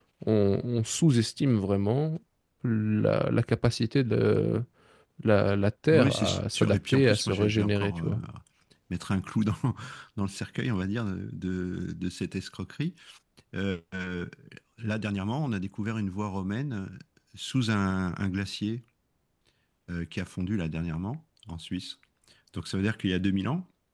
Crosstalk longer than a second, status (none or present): present